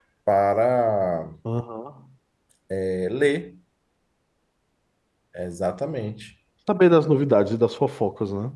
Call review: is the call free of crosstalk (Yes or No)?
Yes